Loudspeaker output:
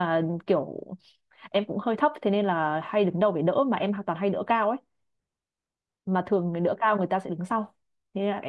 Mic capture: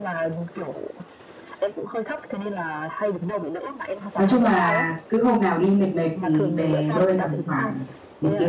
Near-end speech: present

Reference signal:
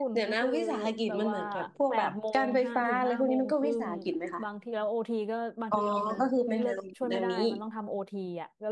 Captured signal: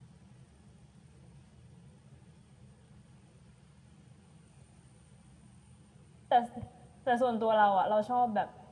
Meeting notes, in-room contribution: present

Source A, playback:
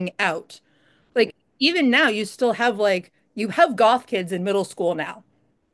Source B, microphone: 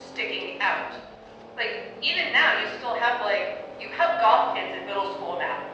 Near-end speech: none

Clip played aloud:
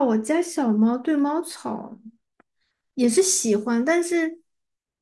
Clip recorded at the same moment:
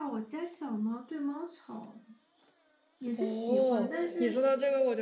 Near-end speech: present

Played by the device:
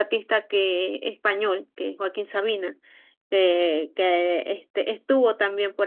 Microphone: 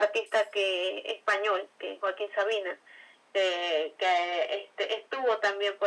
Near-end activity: none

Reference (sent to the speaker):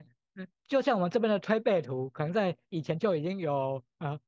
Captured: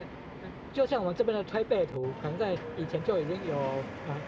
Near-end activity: none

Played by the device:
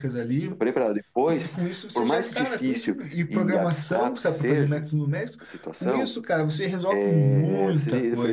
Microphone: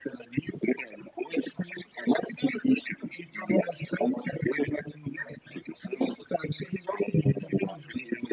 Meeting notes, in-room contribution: none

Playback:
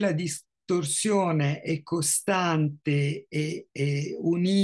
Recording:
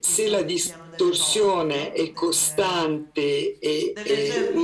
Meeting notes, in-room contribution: present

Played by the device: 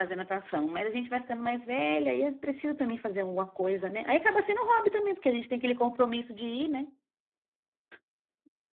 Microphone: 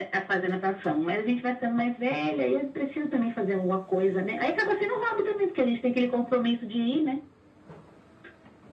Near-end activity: none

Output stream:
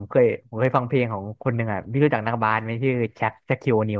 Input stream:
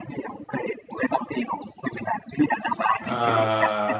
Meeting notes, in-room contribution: present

